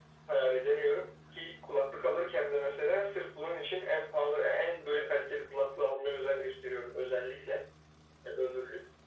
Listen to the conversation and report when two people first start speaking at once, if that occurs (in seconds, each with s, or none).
none